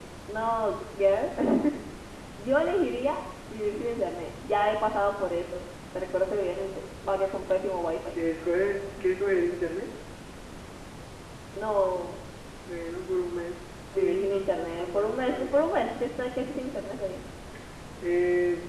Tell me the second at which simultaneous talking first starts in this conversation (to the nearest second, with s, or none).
14 s